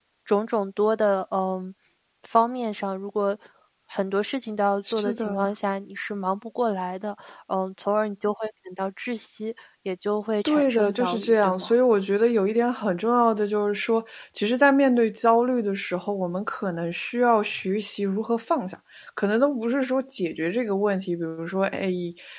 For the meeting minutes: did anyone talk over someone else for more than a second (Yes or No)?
Yes